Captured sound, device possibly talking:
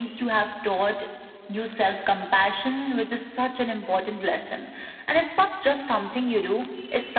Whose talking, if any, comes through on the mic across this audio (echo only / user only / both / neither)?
echo only